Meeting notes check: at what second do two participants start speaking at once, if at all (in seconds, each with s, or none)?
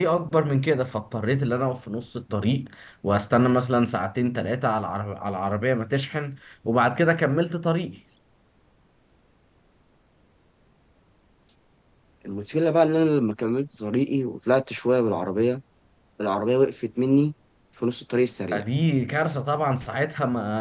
none